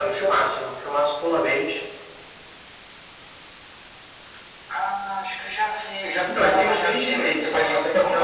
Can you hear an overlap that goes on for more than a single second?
Yes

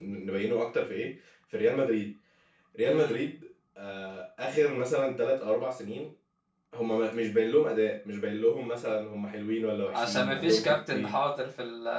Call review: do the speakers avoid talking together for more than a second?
No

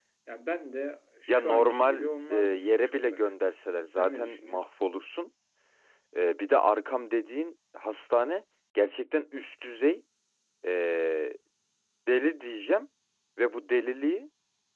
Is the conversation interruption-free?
No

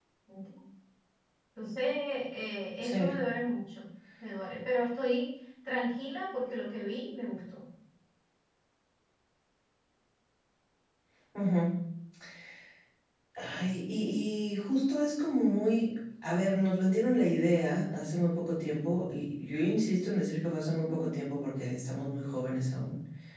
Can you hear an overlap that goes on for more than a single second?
No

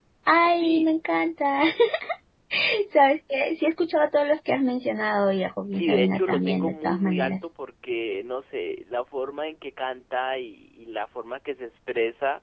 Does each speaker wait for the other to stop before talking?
No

